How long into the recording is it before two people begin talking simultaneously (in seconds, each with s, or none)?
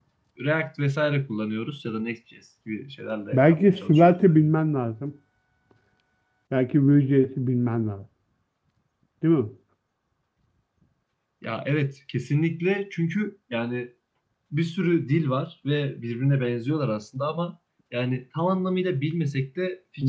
3.3 s